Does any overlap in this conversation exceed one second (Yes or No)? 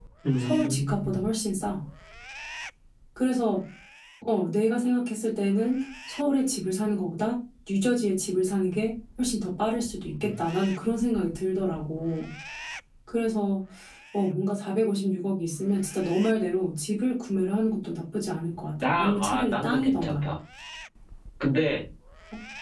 Yes